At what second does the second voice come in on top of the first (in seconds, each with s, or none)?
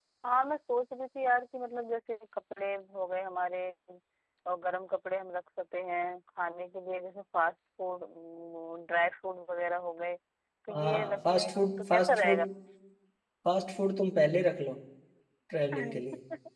10.7 s